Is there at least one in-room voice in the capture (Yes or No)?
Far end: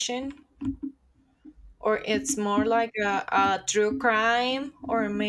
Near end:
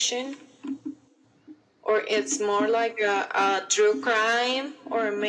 No